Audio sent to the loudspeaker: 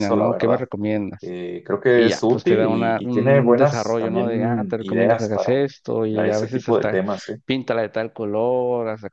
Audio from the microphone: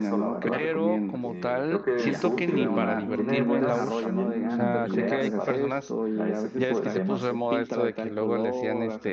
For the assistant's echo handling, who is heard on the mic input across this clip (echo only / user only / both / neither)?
both